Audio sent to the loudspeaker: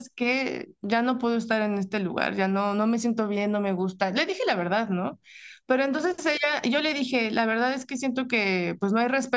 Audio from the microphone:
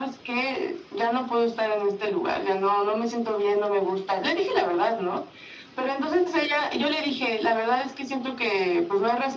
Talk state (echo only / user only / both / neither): echo only